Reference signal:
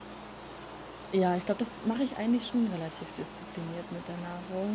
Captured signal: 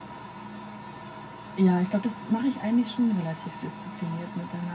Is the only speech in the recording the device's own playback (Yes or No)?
Yes